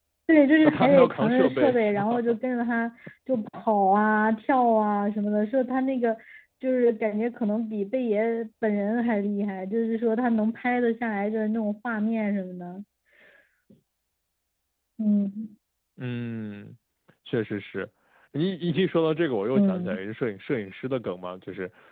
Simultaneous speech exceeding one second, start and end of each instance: 0.6-2.4

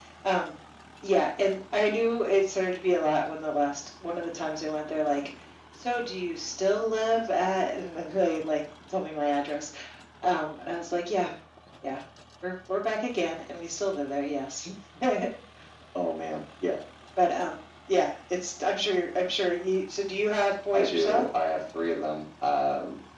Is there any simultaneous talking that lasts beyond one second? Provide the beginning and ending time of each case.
none

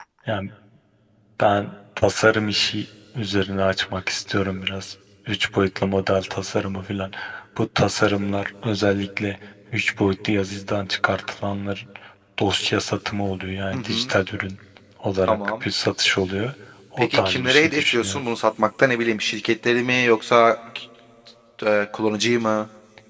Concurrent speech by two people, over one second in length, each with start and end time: 17.0-18.2

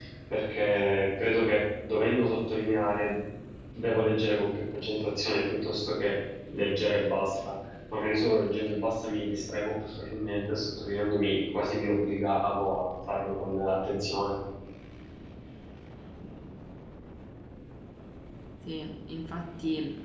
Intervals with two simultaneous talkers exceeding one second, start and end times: none

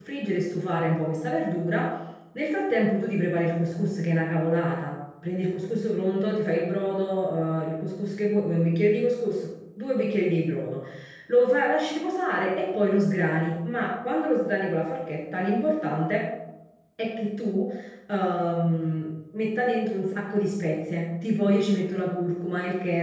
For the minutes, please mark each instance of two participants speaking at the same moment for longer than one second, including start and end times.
none

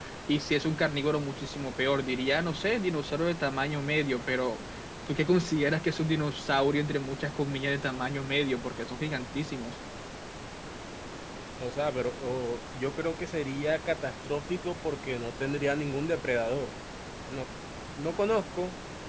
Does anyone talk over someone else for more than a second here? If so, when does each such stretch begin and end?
none

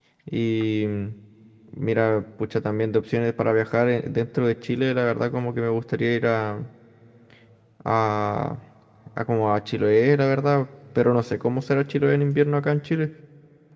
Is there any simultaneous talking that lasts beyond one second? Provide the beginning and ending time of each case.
none

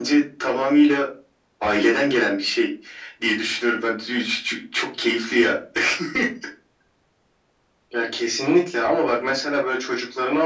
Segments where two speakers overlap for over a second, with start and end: none

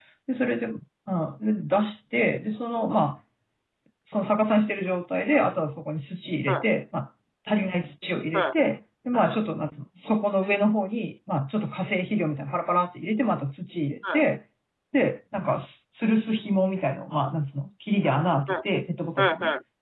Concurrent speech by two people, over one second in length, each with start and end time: none

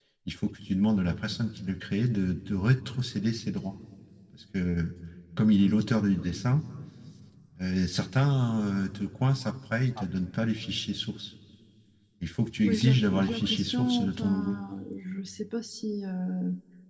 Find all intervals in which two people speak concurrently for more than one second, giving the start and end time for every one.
12.6-14.6

